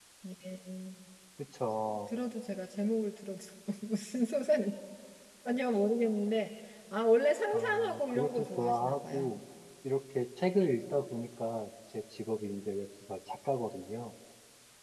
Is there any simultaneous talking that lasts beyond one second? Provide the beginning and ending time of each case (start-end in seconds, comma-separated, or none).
7.5-9.4